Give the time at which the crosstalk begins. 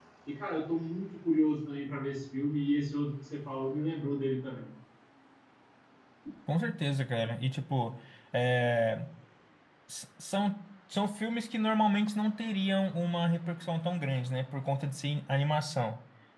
none

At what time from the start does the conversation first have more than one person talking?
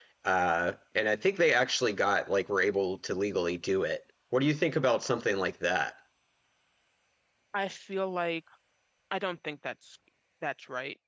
none

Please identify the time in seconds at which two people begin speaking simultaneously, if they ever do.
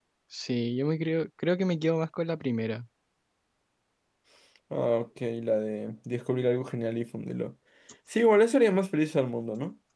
none

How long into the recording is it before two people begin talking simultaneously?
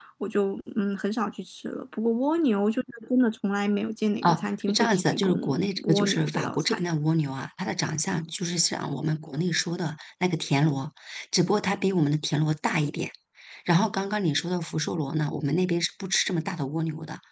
4 s

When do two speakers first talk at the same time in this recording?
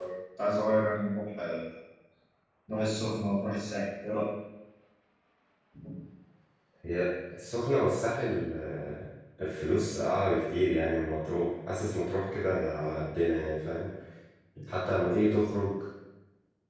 none

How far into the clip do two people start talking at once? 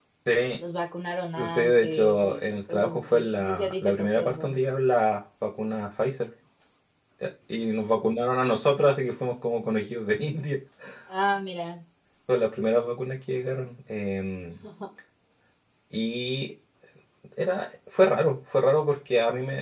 1 s

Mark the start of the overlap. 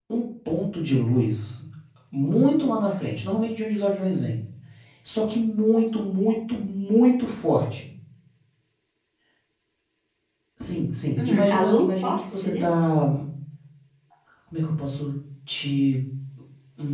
11 s

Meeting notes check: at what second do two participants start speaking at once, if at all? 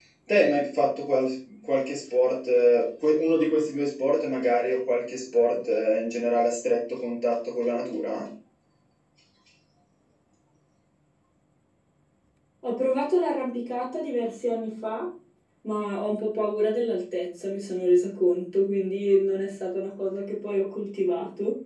none

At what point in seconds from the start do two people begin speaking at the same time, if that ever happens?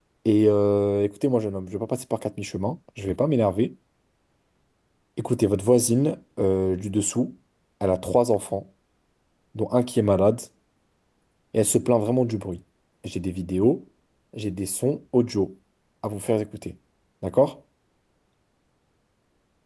none

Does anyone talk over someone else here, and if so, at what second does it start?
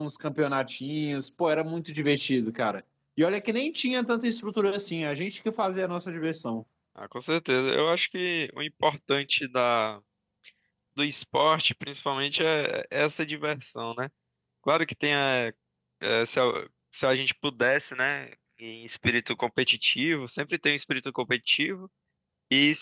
none

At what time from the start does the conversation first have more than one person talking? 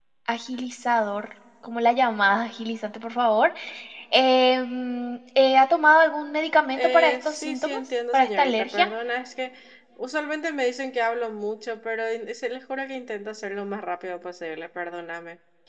7 s

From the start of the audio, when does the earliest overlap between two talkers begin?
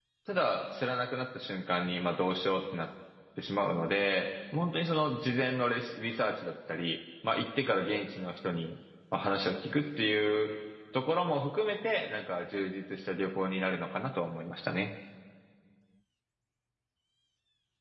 none

